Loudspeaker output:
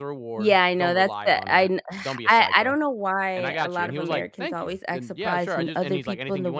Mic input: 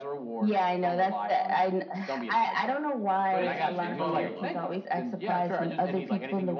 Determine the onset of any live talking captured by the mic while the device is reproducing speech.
3.3 s

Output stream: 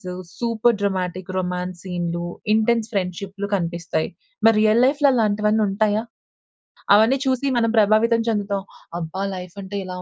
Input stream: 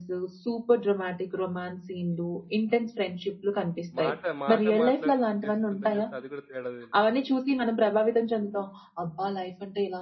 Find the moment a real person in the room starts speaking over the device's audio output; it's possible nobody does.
4.0 s

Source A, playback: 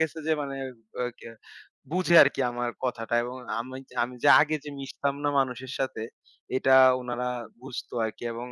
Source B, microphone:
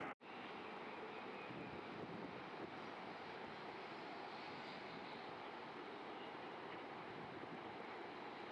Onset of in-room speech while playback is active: none

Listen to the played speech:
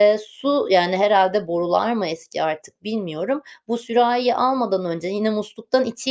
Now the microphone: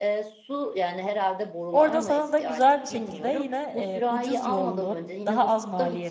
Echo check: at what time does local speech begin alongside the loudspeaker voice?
1.7 s

